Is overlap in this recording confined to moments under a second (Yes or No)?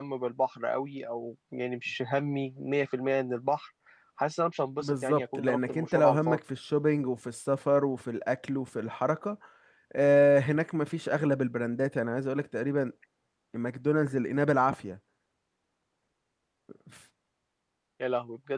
No